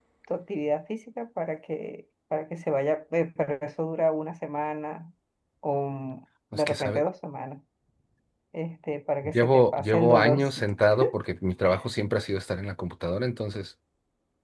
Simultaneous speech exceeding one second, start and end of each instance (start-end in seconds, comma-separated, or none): 9.2-10.7